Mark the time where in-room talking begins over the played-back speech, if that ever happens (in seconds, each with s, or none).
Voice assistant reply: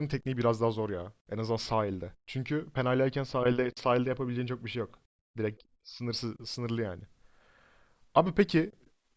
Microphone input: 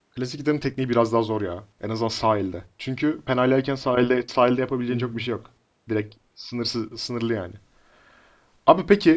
4.9 s